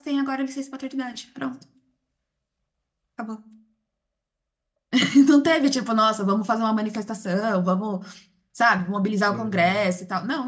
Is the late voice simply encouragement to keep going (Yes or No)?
Yes